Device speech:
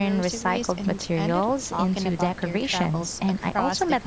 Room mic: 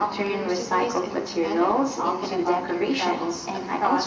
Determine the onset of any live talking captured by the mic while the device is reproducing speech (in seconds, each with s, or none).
none